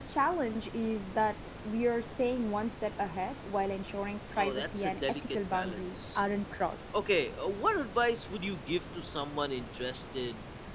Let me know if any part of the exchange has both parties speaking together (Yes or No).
Yes